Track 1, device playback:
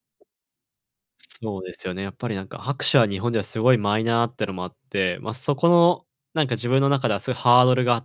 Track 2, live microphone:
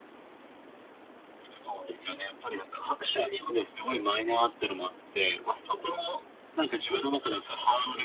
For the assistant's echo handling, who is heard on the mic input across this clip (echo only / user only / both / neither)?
echo only